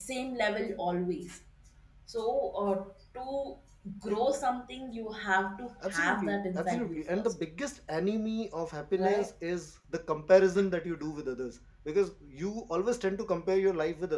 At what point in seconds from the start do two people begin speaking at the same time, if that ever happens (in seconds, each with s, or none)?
5.9 s